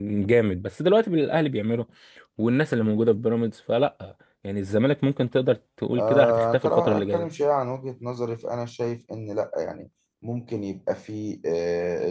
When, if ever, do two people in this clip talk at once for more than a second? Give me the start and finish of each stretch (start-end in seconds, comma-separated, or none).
5.9-7.3